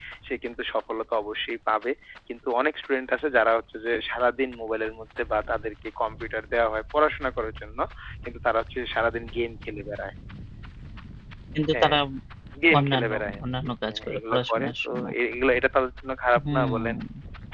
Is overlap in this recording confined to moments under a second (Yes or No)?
No